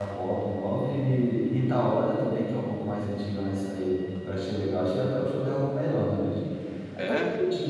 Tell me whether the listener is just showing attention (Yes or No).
Yes